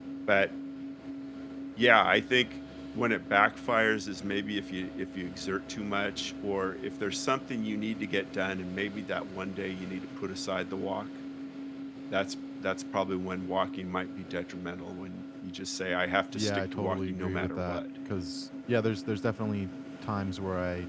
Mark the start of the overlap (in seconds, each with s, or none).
16.3 s